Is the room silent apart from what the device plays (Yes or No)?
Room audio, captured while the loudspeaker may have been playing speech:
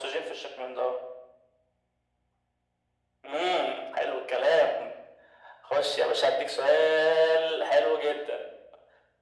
Yes